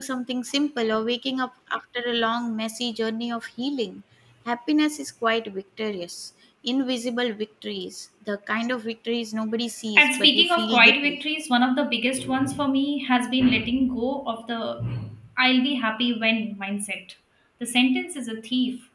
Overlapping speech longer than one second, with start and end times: 9.9-11.2

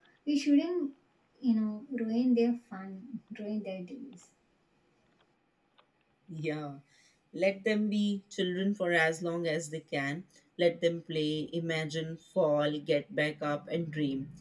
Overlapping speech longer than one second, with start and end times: none

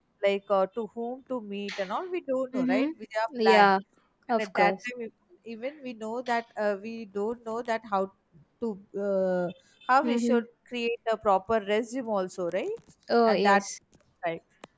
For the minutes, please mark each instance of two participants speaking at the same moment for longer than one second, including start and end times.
none

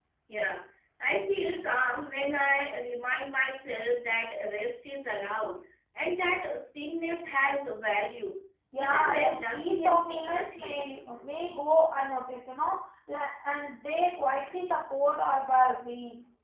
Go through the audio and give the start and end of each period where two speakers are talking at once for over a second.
8.8-10.8

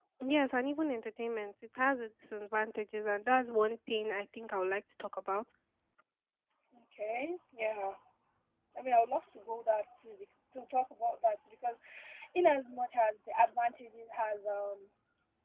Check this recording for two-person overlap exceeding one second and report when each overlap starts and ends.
none

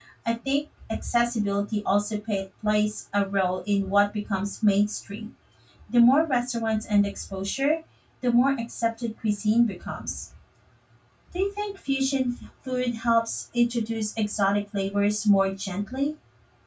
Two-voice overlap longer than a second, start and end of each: none

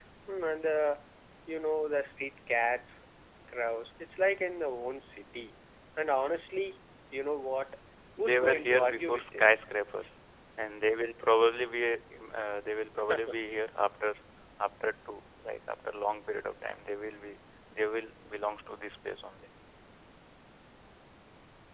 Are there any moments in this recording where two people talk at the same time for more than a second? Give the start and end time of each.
8.2-9.5

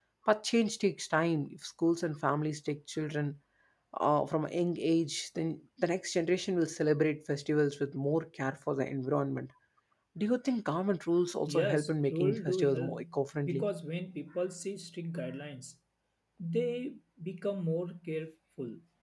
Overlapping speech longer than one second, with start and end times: 11.5-13.0

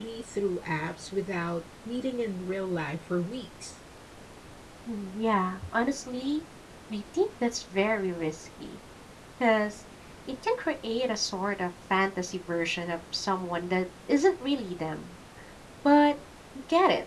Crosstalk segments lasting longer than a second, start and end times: none

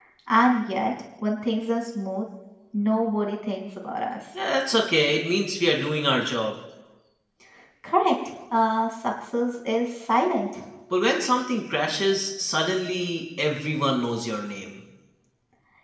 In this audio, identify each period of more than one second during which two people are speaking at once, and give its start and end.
none

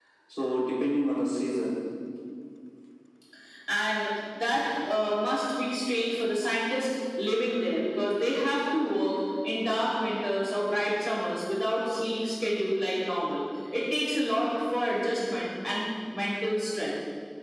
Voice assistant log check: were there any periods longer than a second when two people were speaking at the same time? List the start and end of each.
none

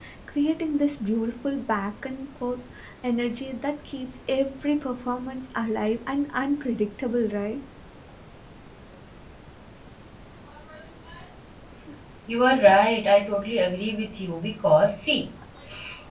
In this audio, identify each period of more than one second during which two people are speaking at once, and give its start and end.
none

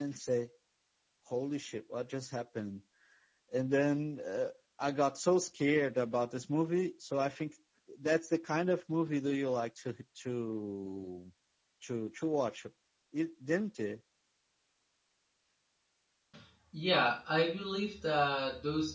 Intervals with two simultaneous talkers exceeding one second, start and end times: none

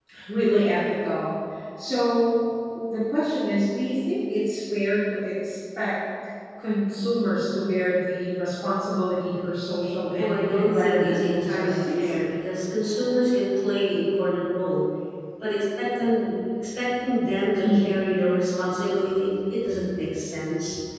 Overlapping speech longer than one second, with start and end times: 10.2-12.1

